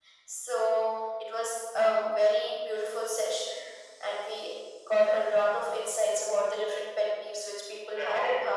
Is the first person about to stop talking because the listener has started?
No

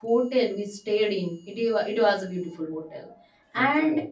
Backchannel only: Yes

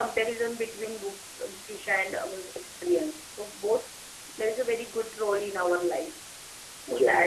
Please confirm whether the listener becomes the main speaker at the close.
No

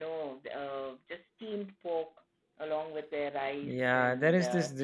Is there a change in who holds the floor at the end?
Yes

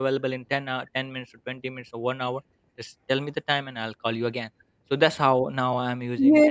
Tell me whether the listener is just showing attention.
No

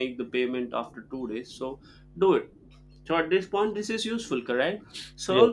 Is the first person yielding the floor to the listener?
No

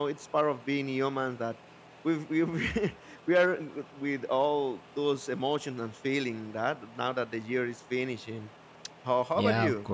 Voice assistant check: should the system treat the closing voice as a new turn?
Yes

